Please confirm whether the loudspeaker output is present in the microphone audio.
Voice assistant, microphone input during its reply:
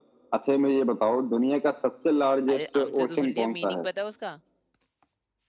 Yes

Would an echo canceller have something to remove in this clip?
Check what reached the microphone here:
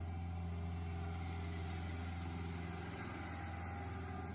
No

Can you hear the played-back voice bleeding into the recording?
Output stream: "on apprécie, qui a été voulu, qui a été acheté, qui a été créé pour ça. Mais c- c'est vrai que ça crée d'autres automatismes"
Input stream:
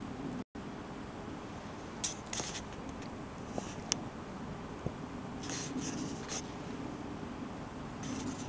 No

